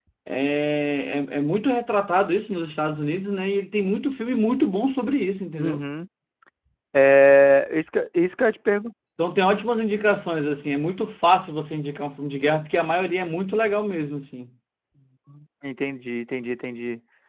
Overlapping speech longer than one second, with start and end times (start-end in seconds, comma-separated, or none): none